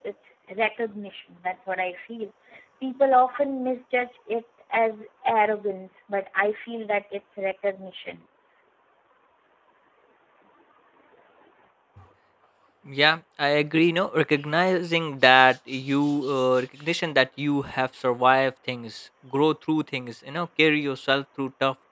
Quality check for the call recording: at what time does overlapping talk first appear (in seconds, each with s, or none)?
none